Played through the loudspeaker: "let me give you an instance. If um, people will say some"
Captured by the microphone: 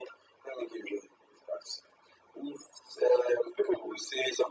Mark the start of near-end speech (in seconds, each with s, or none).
none